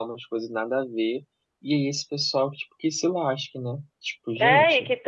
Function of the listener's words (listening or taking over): taking over